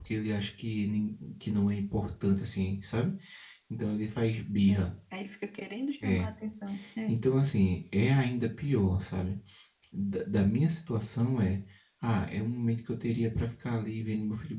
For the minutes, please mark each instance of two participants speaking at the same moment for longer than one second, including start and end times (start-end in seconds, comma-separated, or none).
none